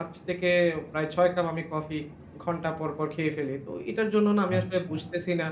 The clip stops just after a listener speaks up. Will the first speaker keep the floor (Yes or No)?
Yes